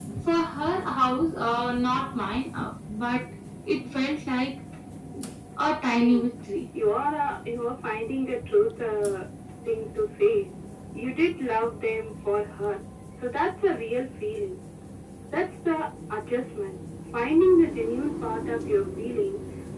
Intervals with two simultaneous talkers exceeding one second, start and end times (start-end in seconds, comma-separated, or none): none